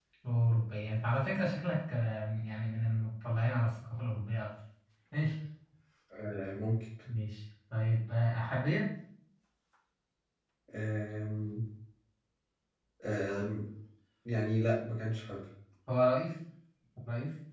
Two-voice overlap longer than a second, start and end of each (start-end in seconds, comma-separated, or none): none